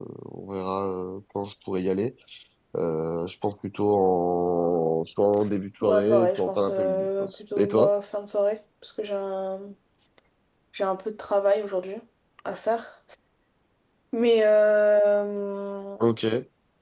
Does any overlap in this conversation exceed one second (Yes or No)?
Yes